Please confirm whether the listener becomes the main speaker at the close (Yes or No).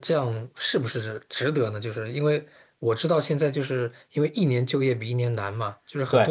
No